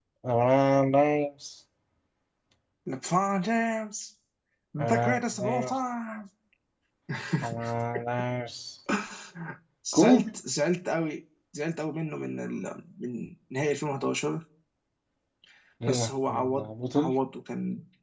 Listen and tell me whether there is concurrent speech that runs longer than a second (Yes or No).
Yes